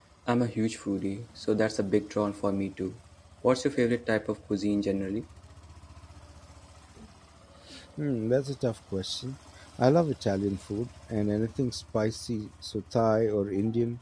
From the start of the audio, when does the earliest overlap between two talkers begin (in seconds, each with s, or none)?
none